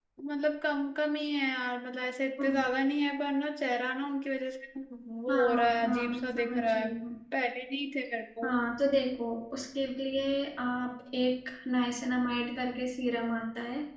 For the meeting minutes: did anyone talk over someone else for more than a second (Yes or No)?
Yes